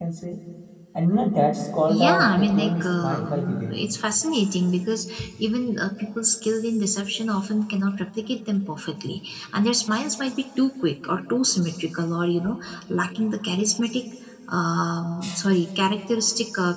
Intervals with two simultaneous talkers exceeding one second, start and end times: 1.9-3.8

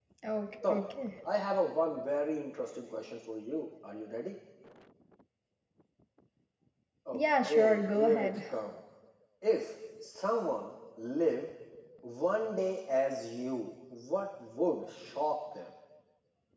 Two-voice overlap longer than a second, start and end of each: 7.1-8.4

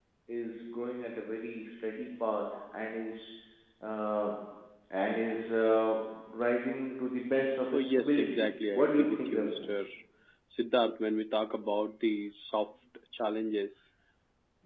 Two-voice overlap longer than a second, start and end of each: 7.7-9.7

